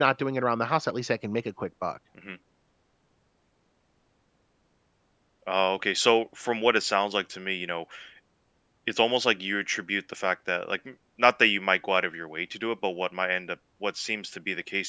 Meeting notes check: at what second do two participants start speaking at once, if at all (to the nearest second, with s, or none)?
none